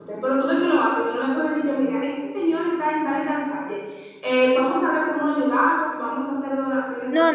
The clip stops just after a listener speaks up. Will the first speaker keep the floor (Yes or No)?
No